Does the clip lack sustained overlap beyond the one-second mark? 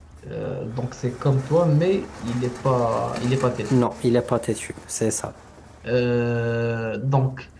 Yes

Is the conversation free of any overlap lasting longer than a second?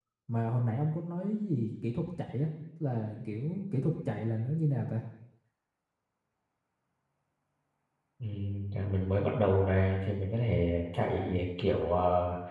Yes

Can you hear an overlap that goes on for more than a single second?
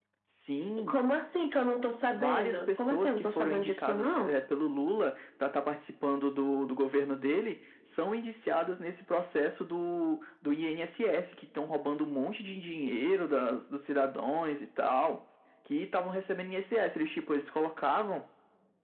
Yes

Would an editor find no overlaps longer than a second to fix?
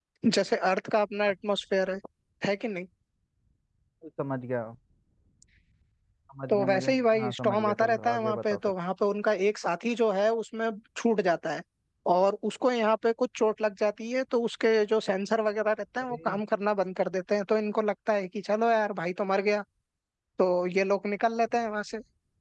No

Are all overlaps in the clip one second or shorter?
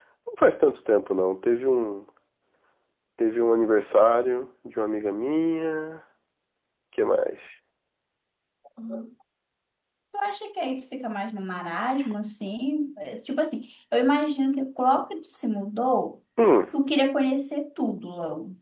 Yes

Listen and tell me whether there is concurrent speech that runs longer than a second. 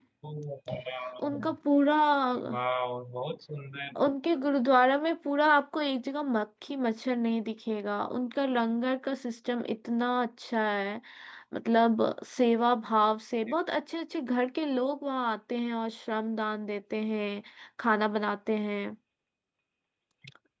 No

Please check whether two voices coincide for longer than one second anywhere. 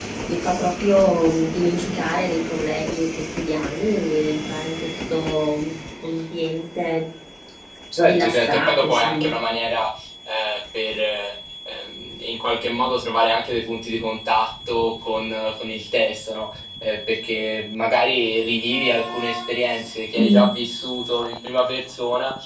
Yes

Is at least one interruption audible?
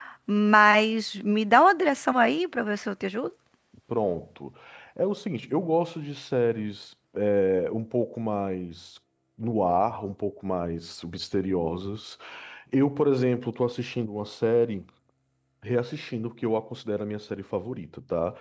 No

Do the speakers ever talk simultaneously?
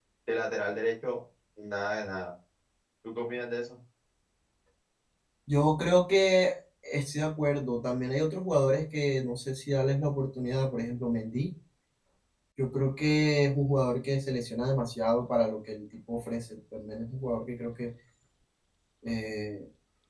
No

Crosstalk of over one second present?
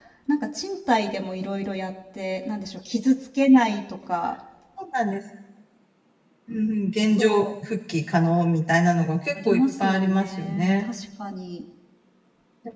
Yes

